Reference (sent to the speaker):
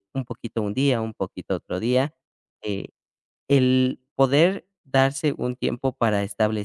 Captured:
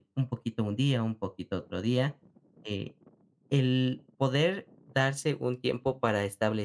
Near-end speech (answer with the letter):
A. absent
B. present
A